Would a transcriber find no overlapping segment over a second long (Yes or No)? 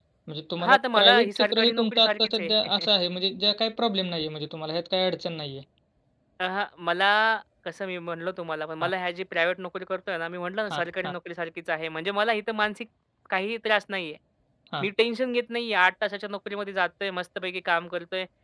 No